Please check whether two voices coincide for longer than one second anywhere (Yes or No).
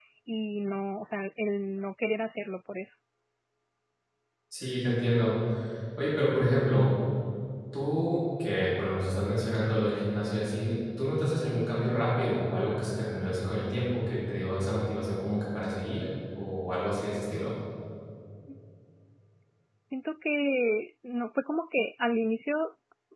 No